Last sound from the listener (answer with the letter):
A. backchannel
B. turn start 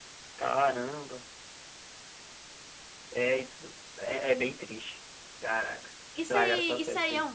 B